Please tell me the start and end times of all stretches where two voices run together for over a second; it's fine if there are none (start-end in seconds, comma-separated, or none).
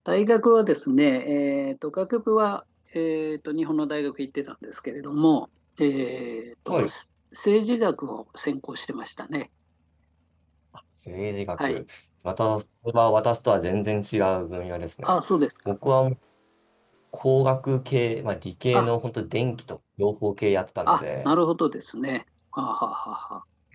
none